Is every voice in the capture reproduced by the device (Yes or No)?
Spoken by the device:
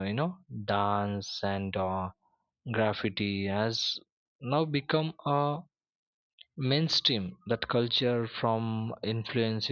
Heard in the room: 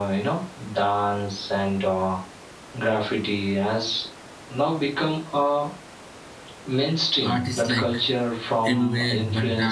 No